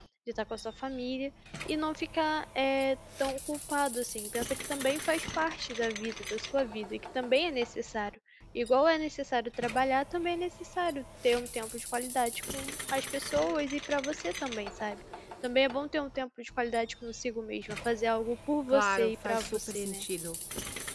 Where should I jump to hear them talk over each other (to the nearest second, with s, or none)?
19 s